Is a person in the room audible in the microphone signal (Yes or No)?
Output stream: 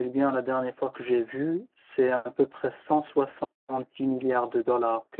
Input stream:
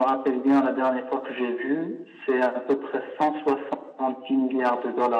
No